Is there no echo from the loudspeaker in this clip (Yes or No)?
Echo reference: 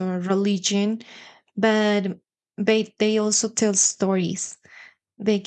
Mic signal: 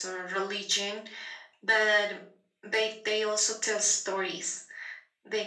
No